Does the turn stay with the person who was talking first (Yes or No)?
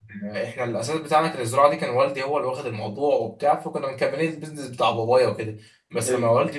Yes